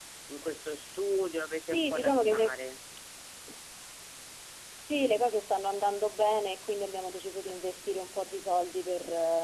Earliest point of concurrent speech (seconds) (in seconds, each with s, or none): 1.0 s